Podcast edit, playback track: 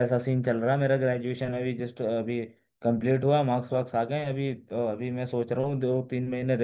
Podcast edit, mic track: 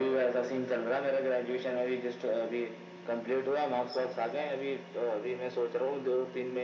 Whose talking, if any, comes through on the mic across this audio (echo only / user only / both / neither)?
echo only